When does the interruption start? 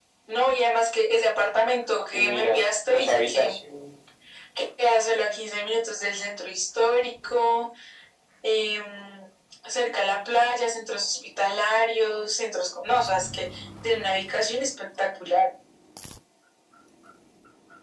2 s

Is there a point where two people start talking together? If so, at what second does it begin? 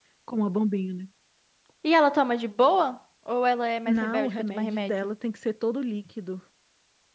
4 s

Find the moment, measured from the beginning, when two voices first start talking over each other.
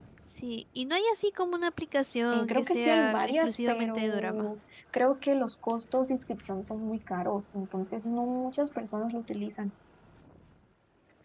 2 s

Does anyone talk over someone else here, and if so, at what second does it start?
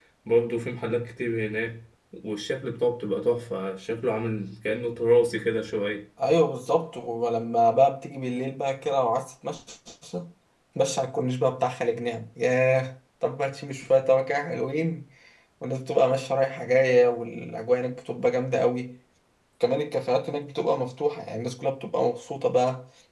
none

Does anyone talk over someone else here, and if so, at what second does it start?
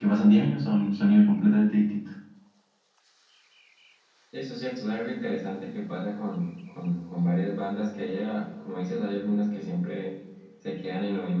none

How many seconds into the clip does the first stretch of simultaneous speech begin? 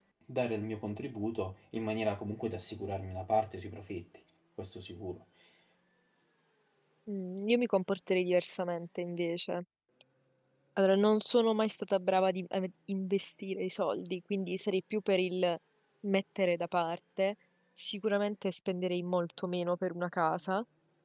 none

